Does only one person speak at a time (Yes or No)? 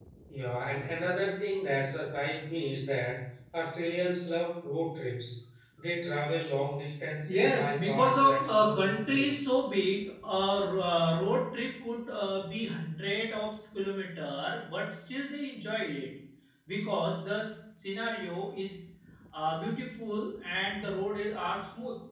No